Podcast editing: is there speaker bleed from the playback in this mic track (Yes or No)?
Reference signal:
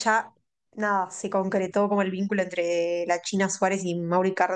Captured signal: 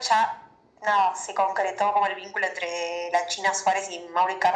Yes